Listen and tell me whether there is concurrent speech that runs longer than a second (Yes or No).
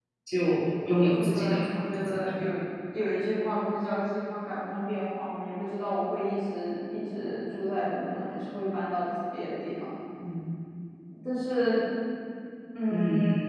Yes